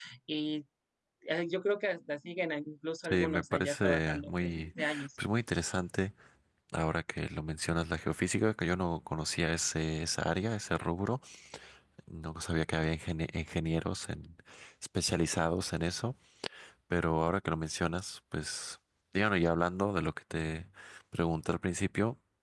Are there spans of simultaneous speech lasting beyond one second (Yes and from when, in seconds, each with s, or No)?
Yes, from 3.0 s